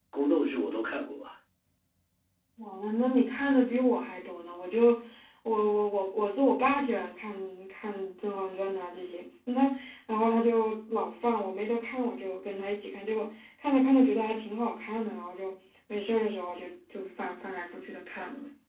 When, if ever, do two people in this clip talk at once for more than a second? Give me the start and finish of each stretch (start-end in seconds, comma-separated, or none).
none